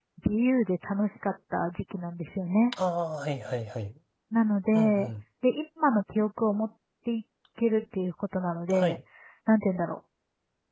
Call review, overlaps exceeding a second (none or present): none